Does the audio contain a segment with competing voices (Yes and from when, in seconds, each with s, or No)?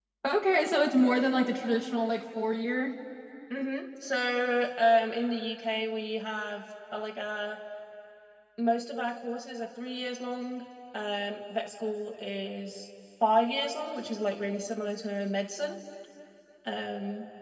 No